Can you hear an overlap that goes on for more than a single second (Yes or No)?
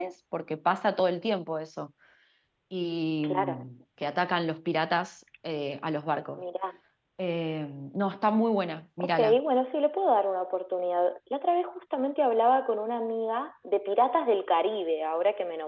No